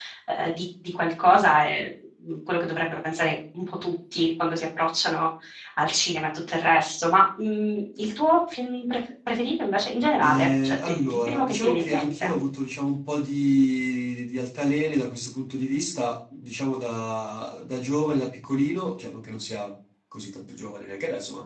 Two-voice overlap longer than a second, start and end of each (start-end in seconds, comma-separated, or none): 10.2-12.3